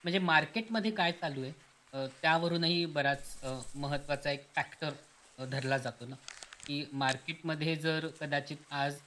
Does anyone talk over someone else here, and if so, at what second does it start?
none

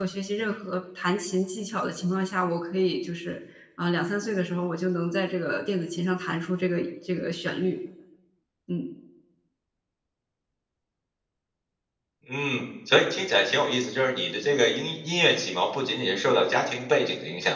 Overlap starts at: none

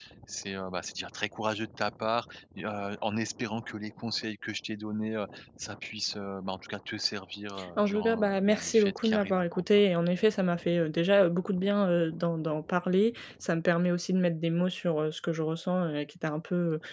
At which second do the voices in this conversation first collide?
7.6 s

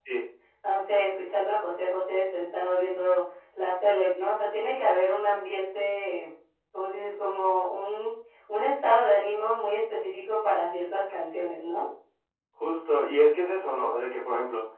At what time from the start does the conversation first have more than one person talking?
none

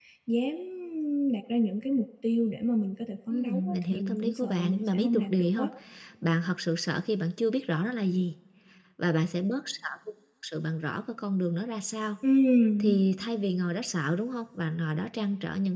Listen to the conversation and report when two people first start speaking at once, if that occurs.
3.3 s

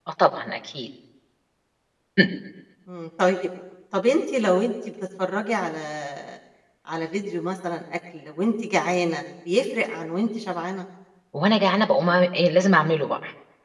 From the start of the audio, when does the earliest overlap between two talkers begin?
none

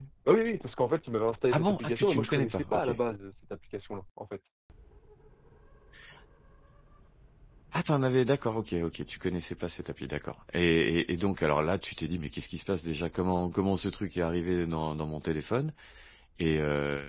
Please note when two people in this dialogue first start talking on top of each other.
1.5 s

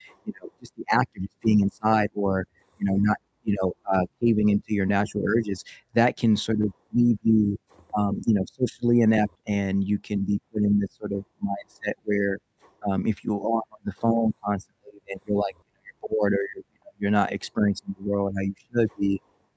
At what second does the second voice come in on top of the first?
none

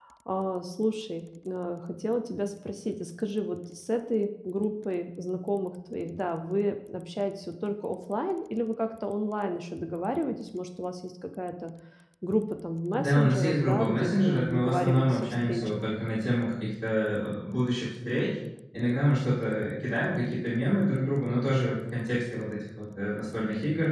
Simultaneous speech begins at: 12.9 s

